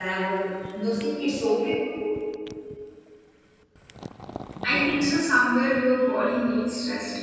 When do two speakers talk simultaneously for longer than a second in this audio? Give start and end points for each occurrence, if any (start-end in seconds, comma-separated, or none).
none